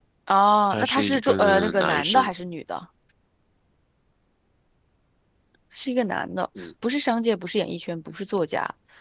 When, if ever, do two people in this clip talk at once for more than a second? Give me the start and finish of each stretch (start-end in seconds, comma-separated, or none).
0.7-2.3